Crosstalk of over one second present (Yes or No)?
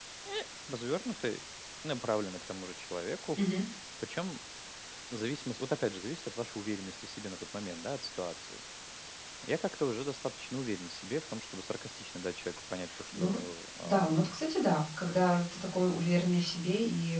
No